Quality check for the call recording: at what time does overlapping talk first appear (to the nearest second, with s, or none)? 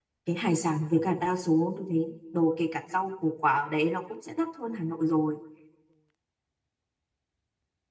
none